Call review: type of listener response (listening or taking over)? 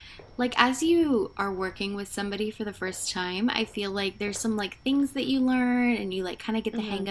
listening